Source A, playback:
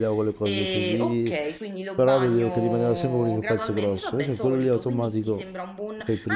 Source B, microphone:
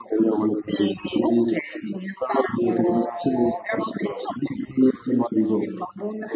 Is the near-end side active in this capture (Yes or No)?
No